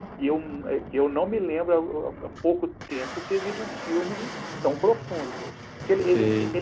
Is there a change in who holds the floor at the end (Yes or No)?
No